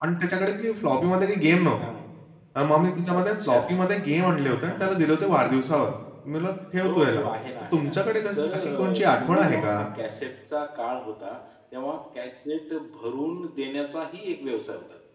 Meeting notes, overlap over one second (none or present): present